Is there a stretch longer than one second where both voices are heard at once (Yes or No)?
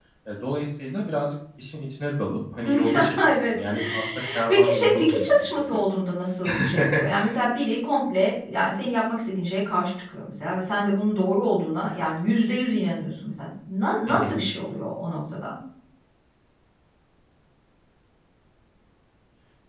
Yes